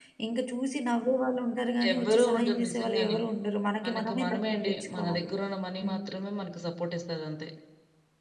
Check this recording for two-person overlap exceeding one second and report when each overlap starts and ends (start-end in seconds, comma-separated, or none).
1.9-3.2, 3.9-5.3